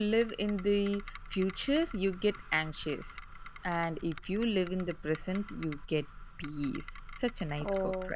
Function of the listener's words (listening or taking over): taking over